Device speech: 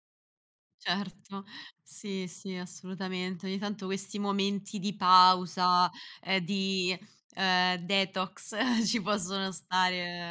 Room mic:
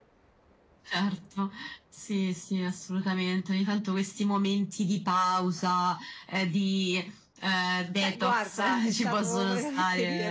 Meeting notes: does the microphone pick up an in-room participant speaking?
Yes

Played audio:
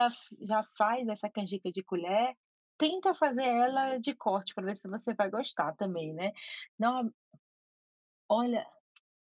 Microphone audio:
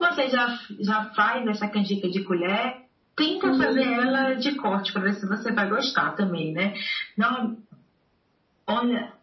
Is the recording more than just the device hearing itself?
Yes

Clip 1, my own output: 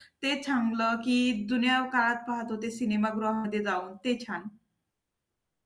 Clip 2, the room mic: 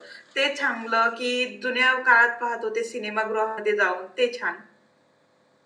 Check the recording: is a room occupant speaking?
No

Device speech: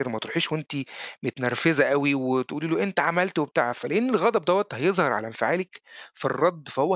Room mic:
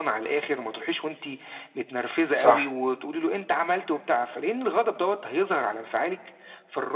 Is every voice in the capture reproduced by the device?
No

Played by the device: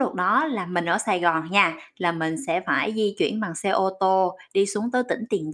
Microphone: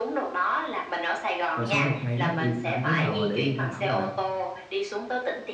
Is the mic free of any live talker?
No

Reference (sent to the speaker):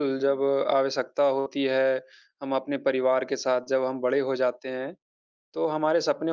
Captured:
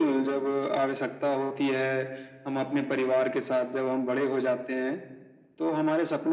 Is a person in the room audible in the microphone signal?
No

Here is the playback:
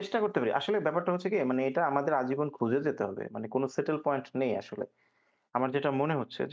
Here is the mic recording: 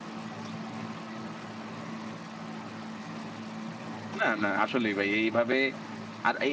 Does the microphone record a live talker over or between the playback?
Yes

